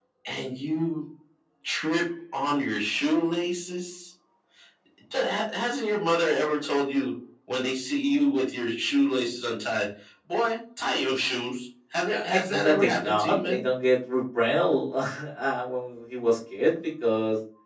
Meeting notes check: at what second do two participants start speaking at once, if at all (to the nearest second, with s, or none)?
12 s